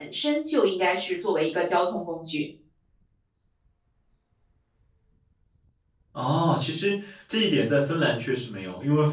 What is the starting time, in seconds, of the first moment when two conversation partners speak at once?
none

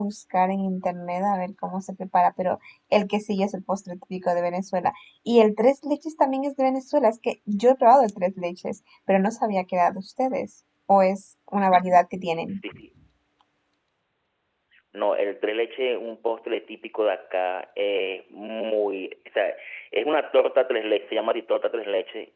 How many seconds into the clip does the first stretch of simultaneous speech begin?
none

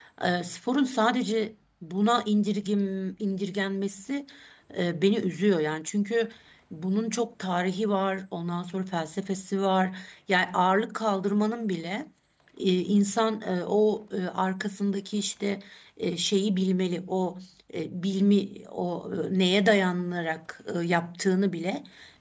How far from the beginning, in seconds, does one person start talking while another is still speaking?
none

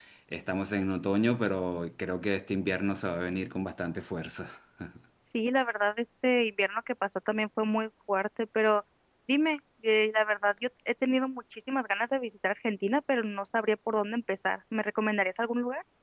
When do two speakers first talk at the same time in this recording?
none

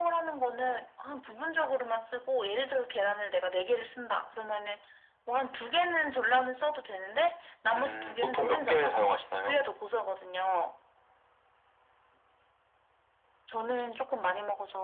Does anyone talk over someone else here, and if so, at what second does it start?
8 s

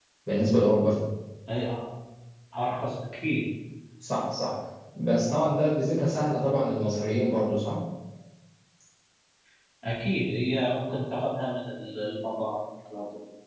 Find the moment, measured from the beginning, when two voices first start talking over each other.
none

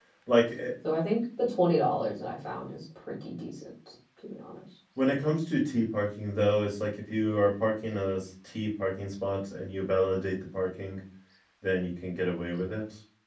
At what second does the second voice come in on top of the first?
none

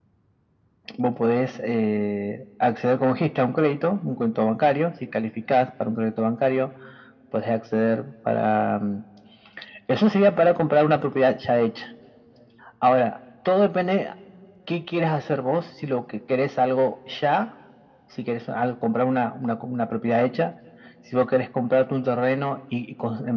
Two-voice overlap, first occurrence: none

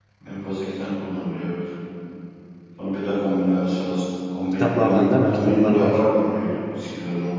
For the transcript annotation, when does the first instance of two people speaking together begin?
5 s

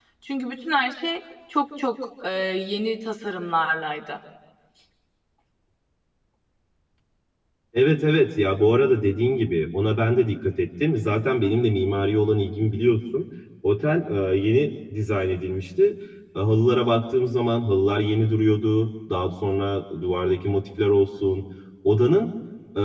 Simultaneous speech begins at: none

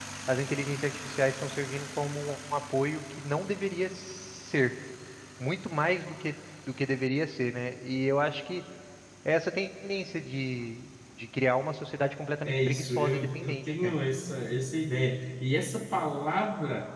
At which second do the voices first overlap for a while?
12 s

